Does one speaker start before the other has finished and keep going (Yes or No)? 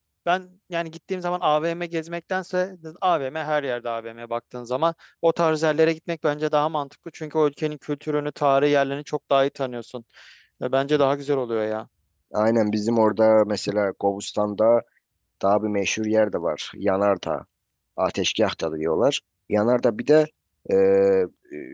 No